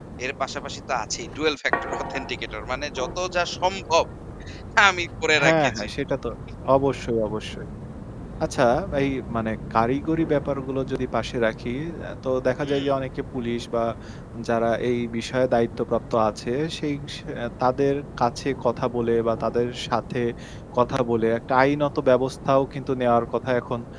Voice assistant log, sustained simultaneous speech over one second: none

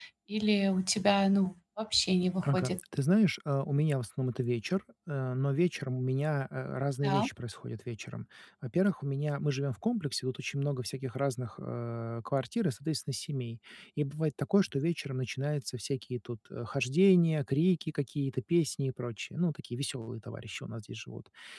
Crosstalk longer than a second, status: none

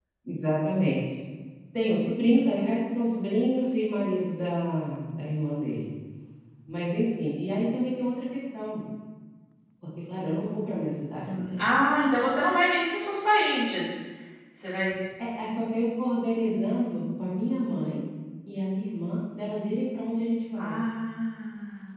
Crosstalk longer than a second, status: none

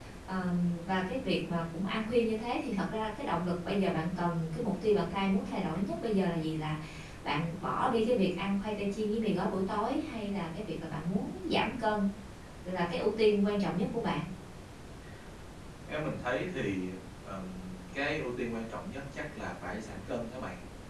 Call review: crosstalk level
none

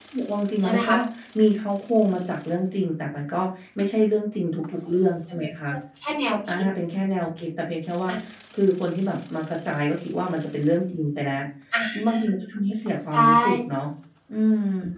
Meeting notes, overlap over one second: none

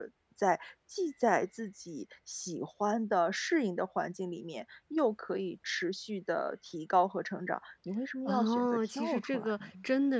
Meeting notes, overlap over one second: present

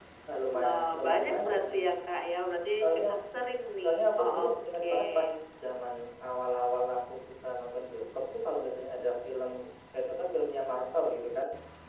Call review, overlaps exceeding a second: present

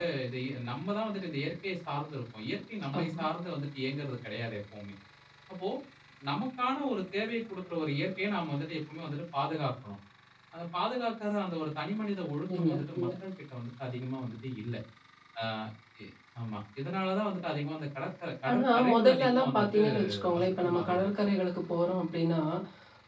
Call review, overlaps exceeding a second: present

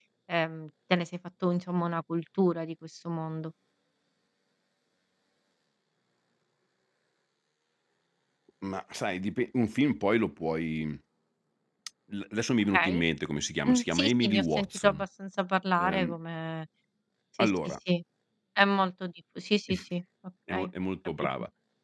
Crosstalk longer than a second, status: present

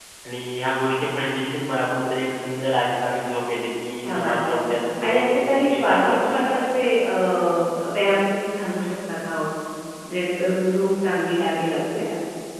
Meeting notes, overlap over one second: present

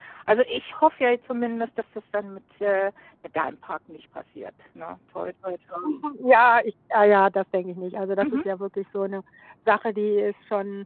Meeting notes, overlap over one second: none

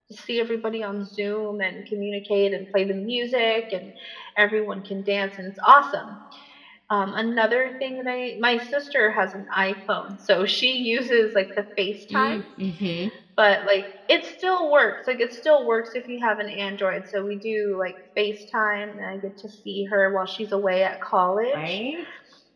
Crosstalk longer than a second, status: none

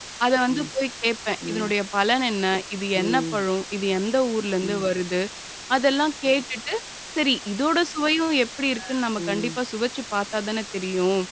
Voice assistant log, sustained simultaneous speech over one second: none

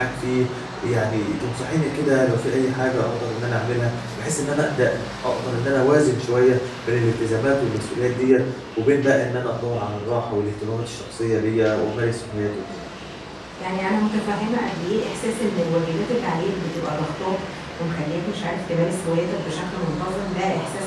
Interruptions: none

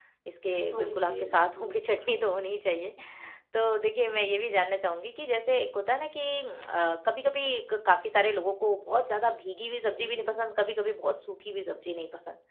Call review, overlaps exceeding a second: present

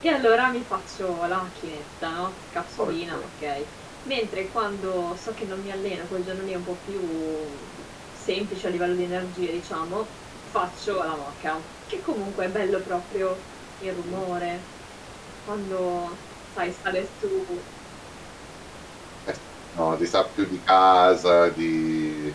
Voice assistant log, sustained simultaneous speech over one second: none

